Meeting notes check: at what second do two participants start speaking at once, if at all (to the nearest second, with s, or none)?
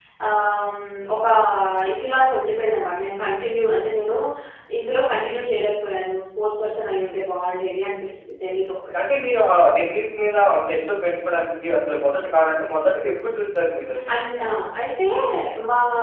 none